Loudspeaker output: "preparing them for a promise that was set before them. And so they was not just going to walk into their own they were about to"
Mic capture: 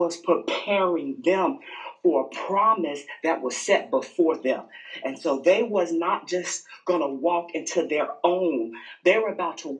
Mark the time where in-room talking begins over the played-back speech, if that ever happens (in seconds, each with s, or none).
none